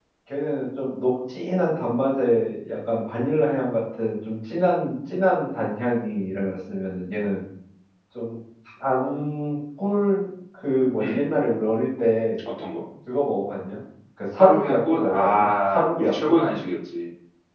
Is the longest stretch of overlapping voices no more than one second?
No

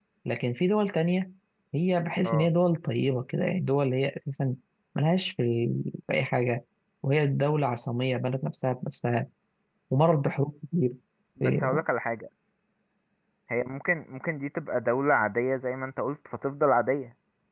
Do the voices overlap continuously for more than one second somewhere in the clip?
No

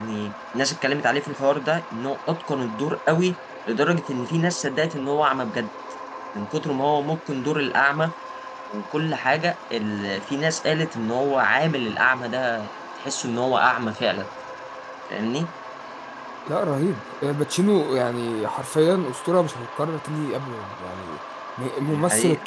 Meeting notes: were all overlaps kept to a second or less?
Yes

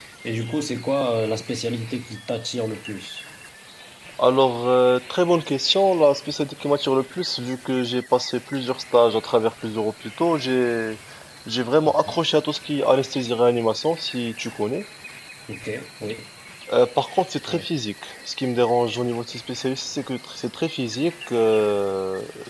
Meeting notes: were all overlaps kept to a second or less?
Yes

